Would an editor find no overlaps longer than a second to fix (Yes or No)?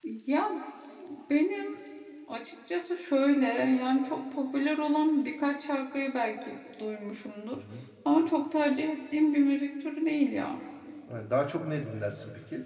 Yes